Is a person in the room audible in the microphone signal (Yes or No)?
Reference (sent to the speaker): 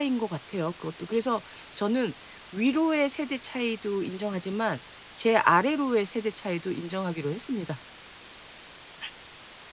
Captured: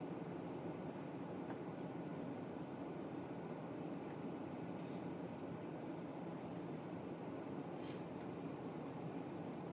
No